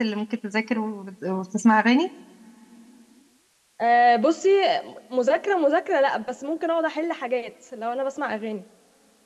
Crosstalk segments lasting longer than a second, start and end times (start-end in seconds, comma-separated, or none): none